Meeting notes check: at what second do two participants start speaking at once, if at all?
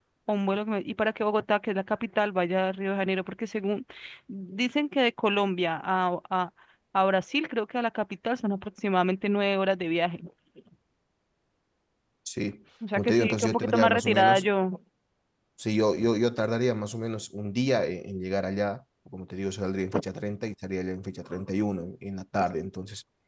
13 s

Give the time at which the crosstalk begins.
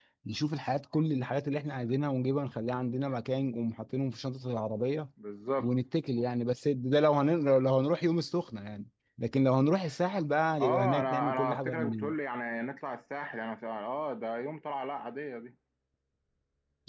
11 s

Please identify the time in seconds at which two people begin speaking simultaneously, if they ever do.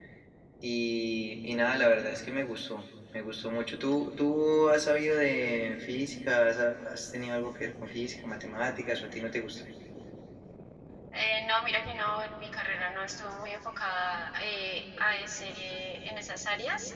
none

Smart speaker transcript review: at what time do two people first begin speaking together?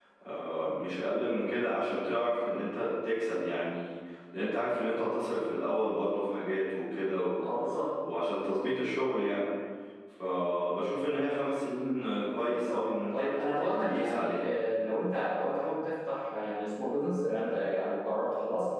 12 s

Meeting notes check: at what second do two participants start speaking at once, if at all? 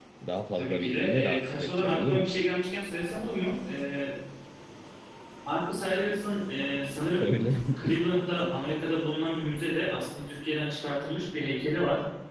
1 s

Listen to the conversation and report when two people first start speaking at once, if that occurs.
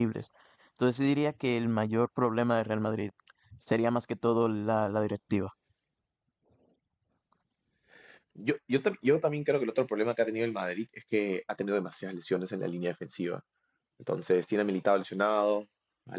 none

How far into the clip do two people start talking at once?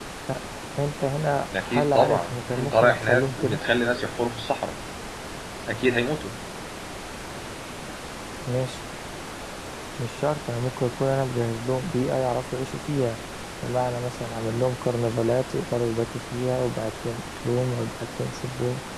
2 s

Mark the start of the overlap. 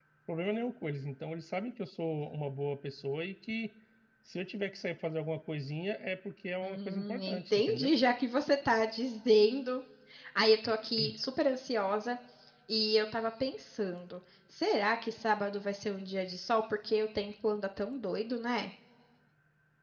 7 s

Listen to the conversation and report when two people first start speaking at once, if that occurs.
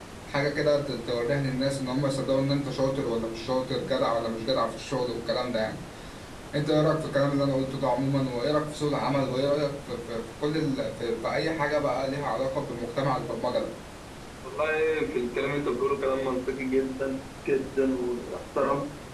none

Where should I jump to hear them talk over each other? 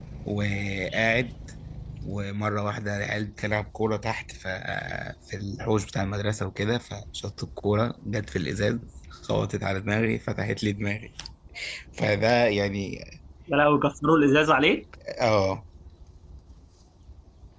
none

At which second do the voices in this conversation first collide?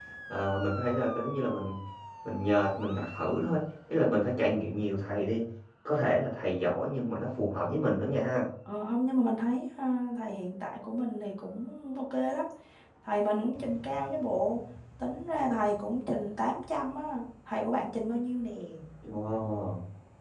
none

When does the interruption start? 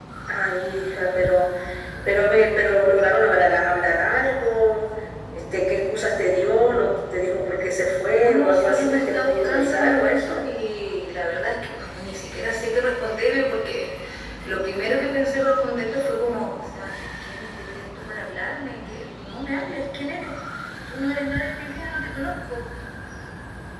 8 s

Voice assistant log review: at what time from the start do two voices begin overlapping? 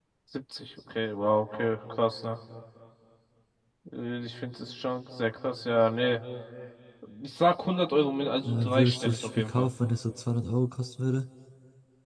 8 s

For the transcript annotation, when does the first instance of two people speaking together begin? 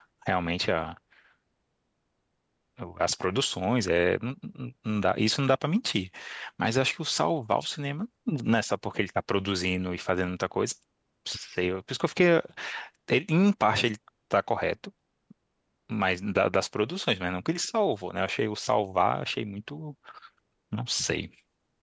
none

